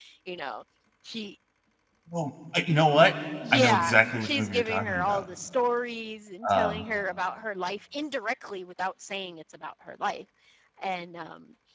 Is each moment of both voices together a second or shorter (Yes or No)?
No